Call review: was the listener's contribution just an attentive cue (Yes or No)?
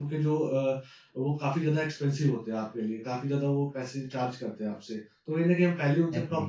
Yes